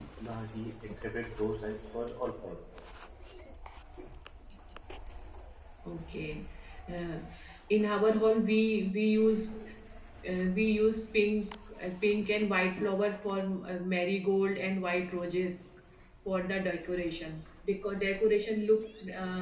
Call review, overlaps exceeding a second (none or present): none